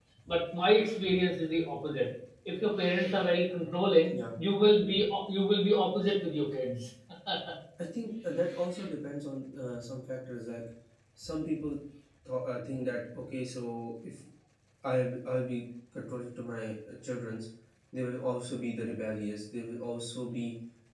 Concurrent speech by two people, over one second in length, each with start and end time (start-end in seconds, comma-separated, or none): none